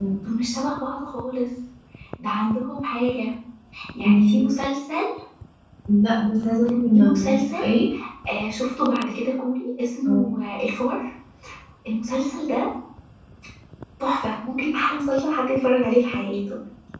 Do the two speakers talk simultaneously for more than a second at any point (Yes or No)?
No